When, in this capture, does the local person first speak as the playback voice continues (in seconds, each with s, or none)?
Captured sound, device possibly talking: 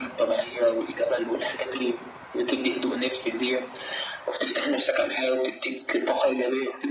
none